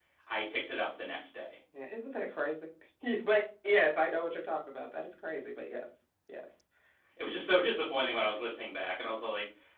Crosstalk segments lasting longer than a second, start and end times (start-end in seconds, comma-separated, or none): none